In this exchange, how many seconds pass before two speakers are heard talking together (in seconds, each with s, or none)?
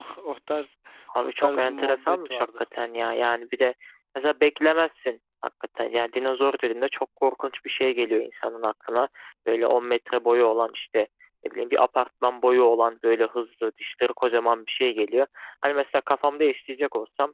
1.2 s